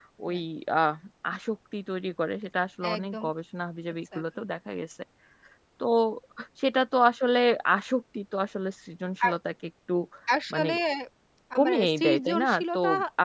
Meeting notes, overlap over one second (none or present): present